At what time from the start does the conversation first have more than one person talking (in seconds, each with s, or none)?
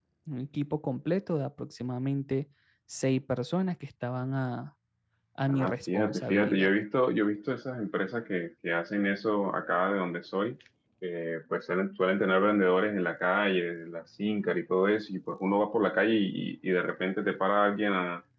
5.5 s